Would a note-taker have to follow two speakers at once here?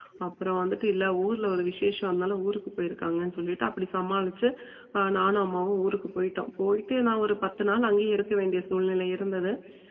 No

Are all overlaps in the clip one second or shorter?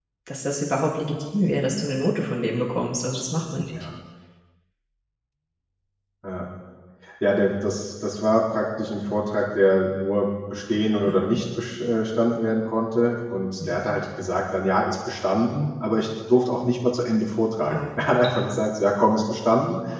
Yes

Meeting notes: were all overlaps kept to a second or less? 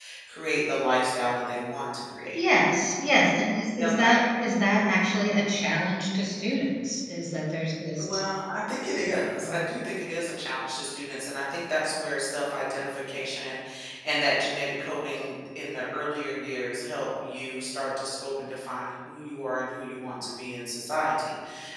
Yes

